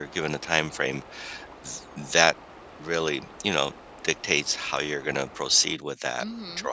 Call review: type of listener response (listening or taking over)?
taking over